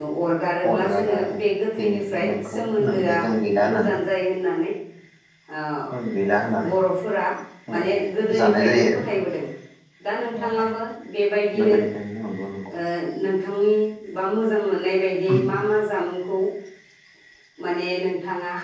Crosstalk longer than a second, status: present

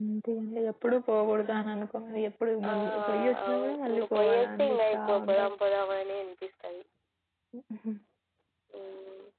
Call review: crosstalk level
present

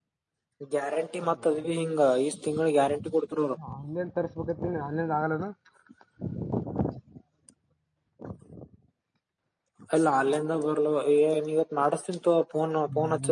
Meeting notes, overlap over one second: none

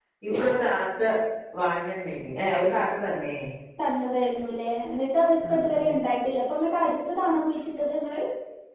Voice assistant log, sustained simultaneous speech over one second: none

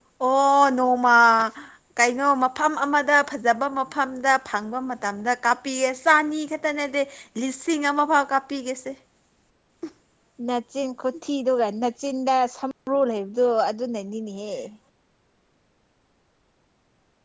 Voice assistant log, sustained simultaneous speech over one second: none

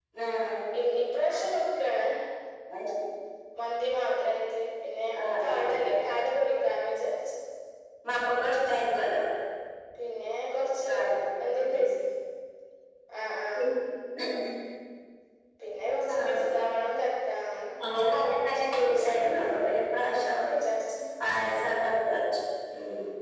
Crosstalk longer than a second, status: none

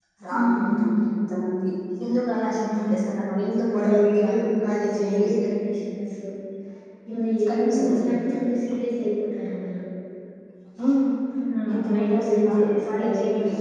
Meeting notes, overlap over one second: present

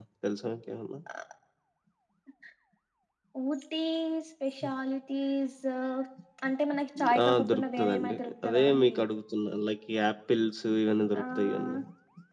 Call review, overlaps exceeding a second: present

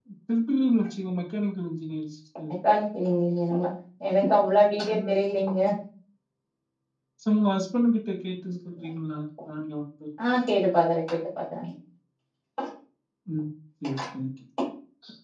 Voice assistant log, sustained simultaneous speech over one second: none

